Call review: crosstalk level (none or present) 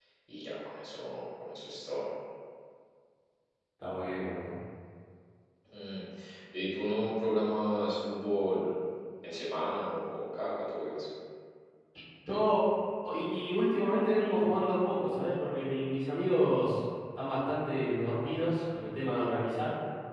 none